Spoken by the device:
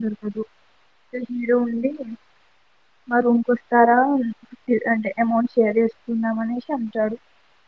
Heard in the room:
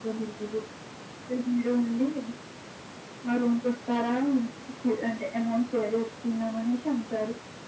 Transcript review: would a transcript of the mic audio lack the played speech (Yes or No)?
No